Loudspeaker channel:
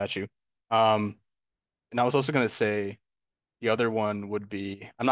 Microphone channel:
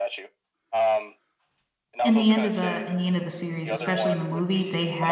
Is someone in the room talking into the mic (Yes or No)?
Yes